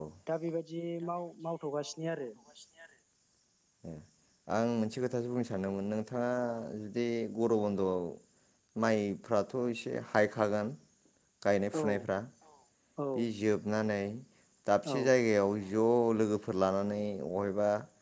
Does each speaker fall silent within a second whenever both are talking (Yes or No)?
Yes